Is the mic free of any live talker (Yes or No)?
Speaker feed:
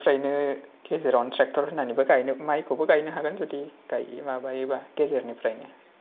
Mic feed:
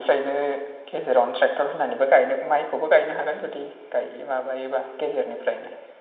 Yes